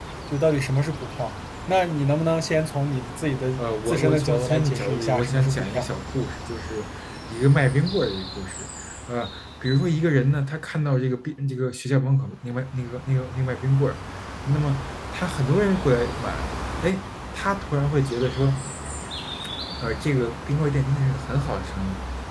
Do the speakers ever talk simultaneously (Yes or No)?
Yes